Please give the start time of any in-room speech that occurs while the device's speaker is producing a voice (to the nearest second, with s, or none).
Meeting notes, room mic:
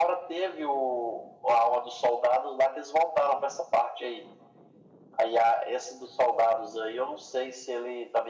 none